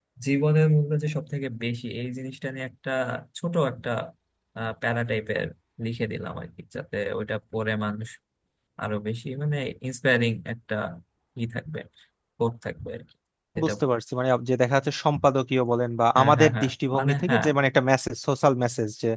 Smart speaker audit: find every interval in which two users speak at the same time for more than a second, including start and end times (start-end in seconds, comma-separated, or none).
16.1-17.4